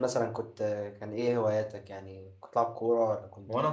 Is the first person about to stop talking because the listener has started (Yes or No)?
Yes